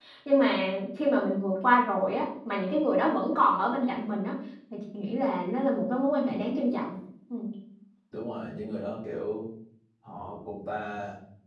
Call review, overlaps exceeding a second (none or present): none